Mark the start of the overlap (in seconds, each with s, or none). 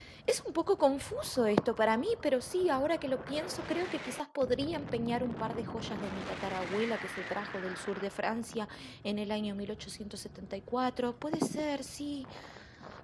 none